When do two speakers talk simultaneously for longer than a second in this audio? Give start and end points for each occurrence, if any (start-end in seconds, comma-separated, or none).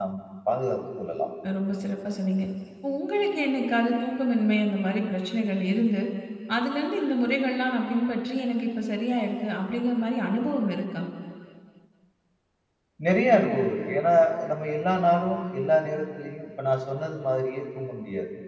none